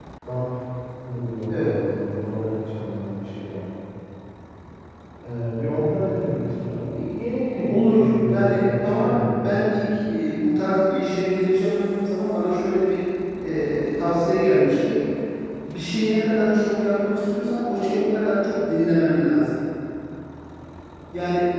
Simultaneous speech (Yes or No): Yes